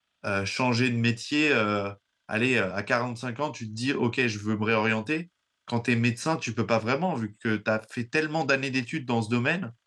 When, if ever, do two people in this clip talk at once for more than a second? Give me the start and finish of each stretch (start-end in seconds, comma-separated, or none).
none